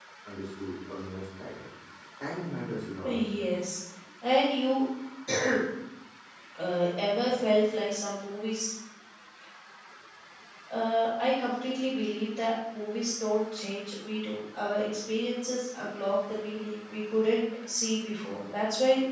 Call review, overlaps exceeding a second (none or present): none